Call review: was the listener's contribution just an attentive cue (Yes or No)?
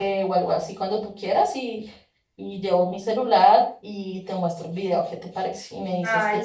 No